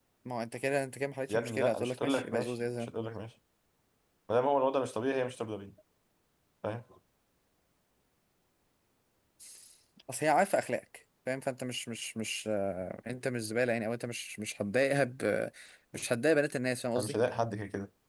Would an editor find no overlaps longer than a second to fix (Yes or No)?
No